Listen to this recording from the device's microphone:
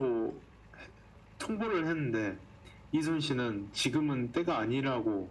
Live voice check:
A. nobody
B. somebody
A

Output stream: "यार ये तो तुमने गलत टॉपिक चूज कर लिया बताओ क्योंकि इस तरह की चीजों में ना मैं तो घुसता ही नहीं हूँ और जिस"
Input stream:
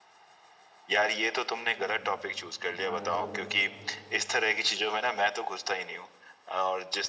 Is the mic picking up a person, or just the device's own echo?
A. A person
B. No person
A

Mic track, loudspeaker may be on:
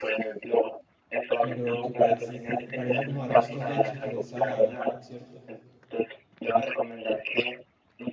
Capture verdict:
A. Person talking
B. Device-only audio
A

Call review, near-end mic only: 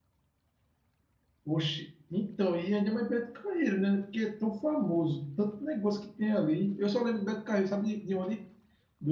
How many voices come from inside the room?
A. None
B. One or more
B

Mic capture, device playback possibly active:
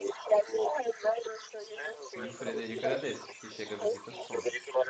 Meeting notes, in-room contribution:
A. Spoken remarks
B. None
A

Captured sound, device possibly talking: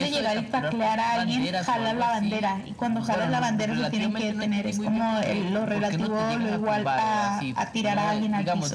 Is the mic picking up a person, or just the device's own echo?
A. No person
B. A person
A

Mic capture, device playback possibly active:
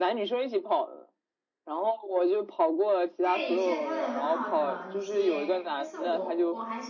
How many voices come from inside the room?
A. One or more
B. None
A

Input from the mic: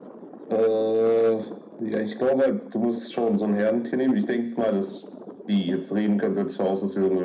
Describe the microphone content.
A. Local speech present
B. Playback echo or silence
B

